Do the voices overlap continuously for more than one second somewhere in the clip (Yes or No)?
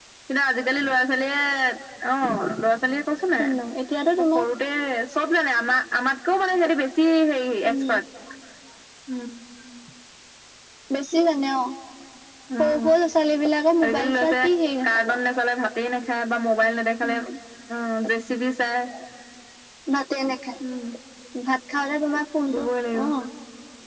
Yes